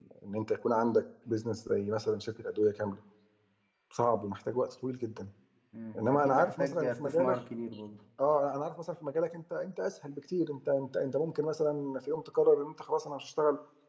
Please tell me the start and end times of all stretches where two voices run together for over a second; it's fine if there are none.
6.0-7.4

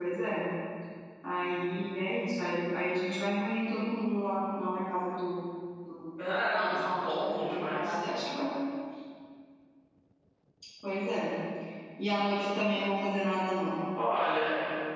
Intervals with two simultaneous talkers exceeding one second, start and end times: 6.5-8.0

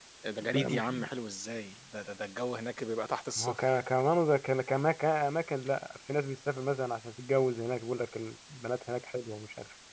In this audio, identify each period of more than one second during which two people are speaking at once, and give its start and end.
none

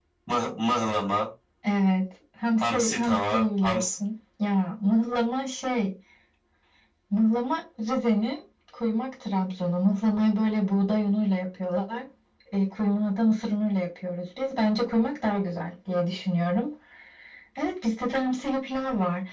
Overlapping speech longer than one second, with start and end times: 2.6-3.8

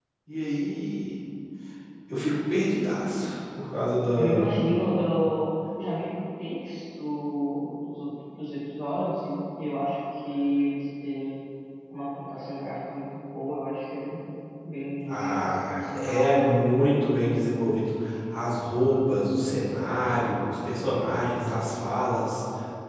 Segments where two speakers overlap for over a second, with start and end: 15.1-16.7

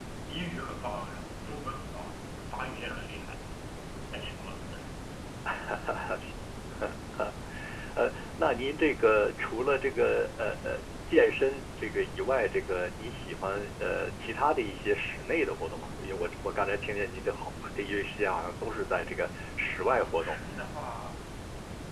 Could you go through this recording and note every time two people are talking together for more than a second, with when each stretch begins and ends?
none

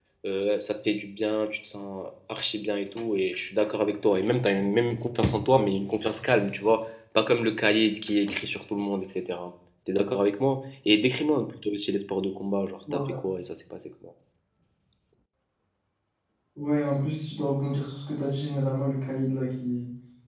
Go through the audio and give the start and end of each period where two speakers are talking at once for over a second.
none

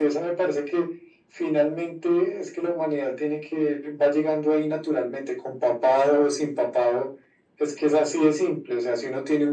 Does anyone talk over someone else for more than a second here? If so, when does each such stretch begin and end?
none

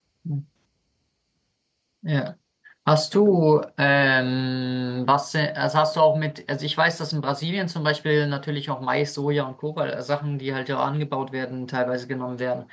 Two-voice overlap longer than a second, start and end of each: none

